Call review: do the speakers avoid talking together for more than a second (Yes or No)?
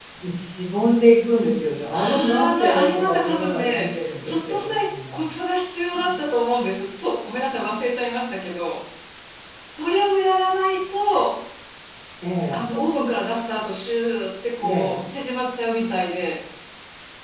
No